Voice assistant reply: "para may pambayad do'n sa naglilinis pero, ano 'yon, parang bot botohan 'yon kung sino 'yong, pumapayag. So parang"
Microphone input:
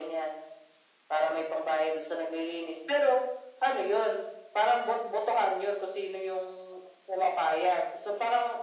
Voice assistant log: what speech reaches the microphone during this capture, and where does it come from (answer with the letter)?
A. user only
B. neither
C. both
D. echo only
D